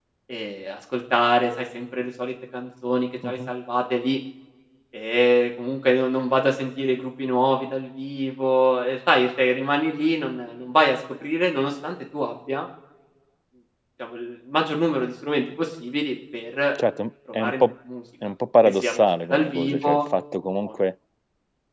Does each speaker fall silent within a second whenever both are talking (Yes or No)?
No